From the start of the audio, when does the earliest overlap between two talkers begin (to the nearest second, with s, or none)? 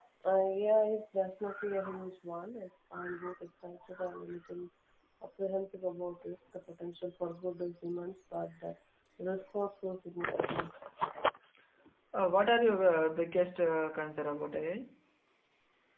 none